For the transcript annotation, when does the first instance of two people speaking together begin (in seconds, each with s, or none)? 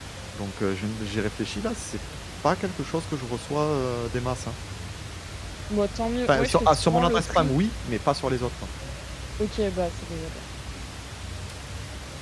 6.3 s